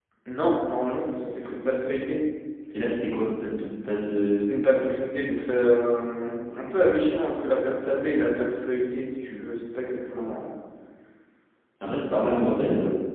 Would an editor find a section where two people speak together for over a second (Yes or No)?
No